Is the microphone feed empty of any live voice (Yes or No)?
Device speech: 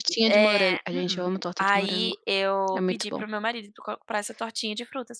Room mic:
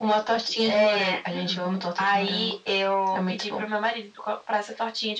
Yes